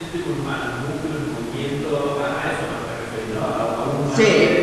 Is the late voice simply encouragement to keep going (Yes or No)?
Yes